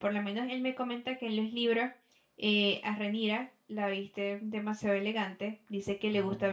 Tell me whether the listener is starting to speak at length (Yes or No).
No